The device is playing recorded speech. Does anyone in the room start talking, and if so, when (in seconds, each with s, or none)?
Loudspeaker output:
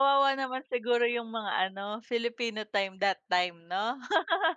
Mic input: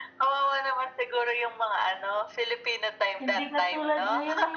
3.2 s